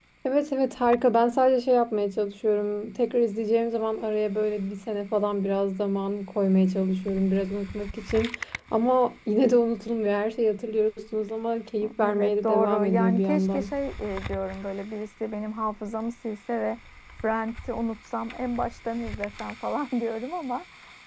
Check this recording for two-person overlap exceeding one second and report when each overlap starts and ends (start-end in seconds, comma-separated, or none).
12.1-13.7